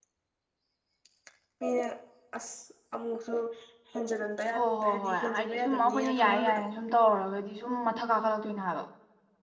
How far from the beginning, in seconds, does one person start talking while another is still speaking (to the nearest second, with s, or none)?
5 s